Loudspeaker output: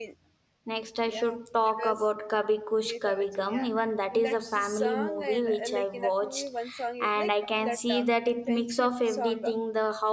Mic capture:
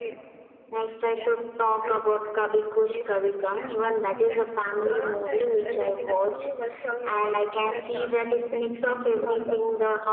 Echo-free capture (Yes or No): No